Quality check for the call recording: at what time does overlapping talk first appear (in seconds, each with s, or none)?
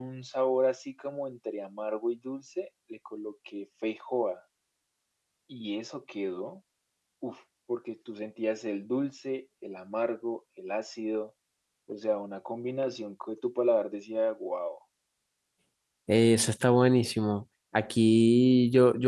none